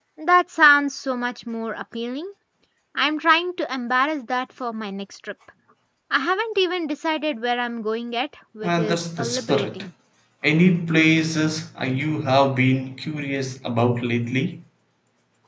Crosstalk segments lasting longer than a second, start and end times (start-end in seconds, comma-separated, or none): 8.6-9.8